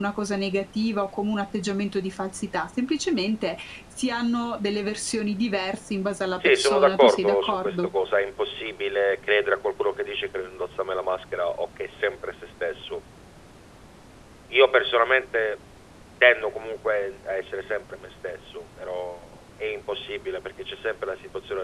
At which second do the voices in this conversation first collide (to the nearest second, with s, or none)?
6 s